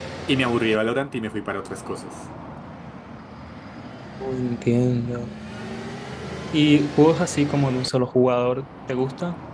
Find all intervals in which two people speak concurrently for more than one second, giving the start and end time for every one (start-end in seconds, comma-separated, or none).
none